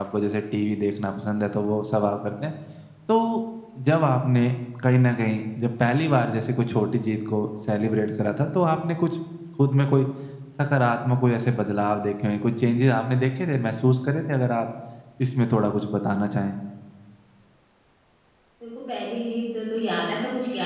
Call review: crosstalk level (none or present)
none